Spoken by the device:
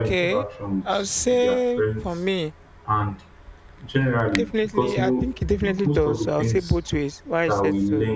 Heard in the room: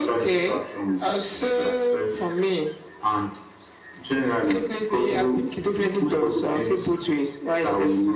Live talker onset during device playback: none

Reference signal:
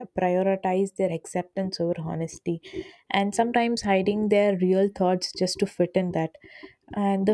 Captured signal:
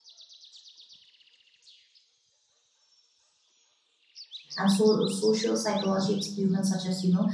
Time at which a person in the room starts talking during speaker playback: 4.6 s

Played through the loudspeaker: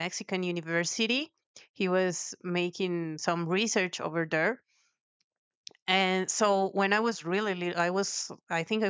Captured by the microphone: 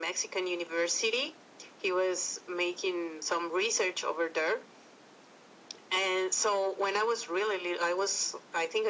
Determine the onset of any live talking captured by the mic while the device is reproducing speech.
none

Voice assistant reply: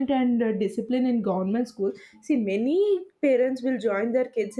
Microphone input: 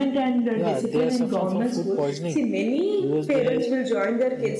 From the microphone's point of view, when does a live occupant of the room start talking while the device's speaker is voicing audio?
0.5 s

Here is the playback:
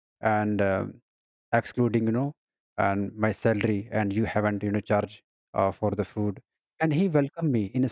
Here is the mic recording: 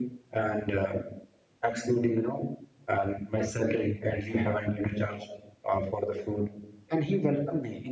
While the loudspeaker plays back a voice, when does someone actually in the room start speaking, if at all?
none

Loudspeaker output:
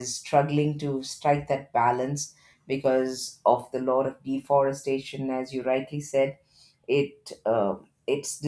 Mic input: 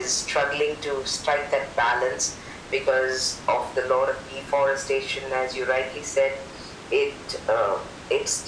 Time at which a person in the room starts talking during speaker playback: none

